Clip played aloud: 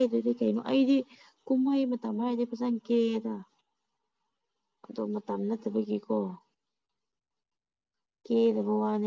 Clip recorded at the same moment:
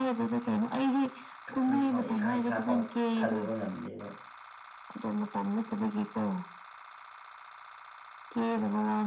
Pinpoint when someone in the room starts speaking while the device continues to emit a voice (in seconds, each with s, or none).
1.5 s